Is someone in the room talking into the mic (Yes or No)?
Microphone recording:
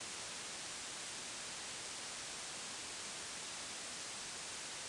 No